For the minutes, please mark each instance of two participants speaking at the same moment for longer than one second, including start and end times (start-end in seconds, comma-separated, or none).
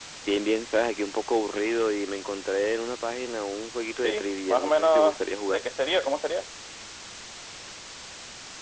4.0-5.6